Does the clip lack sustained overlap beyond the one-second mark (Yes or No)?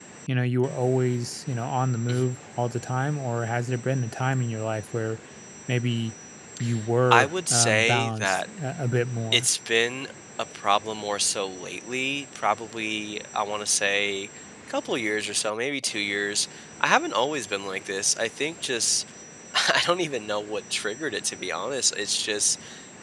No